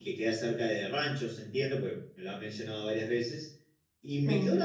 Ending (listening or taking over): listening